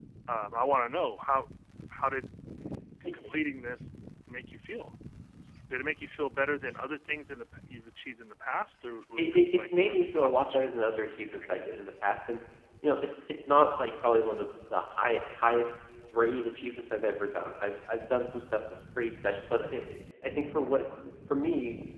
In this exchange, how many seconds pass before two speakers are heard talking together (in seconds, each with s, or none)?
9.2 s